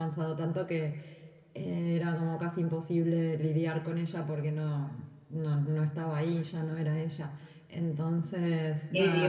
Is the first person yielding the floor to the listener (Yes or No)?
Yes